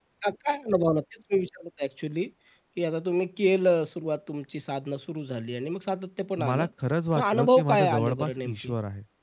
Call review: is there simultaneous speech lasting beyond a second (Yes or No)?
Yes